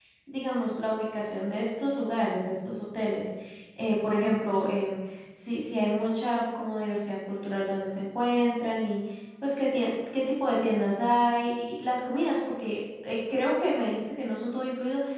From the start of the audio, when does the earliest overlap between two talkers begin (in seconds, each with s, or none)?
none